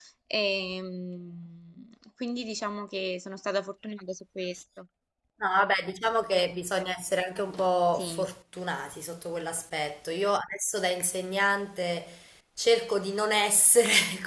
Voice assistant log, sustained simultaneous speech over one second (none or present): none